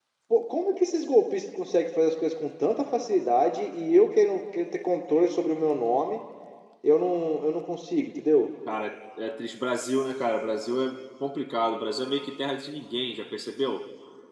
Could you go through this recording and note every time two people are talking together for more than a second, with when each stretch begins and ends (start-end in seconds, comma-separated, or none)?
none